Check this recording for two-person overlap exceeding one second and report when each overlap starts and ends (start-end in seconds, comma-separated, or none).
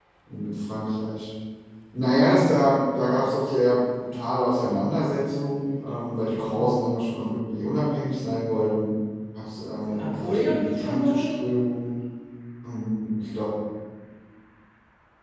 9.8-11.3